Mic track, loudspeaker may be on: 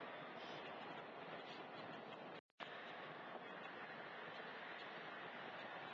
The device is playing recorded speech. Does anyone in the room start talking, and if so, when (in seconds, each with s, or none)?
none